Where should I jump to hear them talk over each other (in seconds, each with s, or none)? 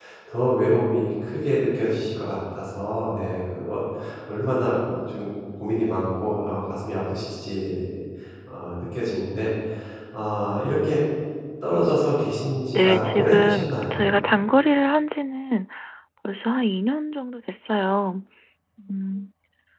12.8 s